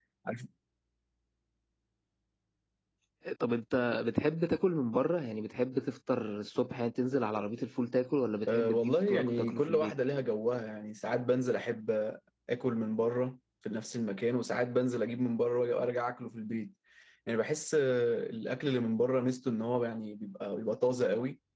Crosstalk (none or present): present